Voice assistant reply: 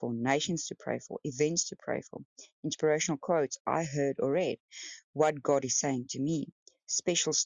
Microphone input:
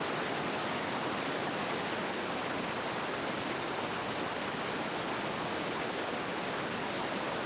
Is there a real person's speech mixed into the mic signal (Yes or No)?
No